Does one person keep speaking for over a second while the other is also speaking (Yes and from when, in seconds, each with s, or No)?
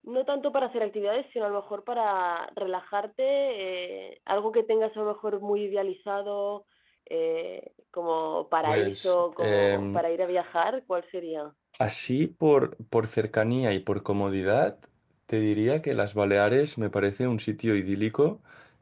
Yes, from 8.6 s